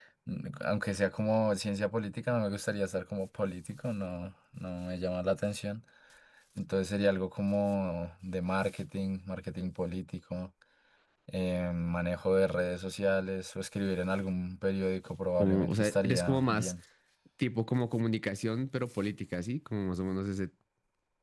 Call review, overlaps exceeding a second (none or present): present